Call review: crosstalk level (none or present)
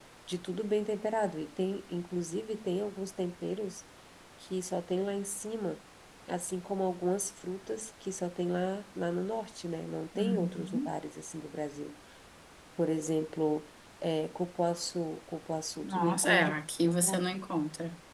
present